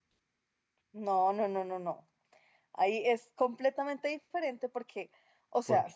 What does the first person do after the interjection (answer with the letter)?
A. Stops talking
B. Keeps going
B